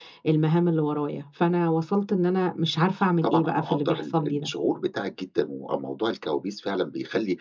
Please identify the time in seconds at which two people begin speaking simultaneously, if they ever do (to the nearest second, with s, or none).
3 s